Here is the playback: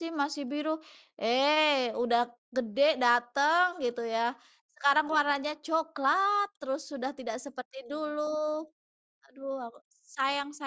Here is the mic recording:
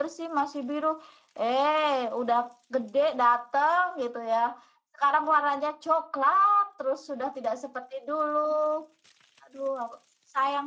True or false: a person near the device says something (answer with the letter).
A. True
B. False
B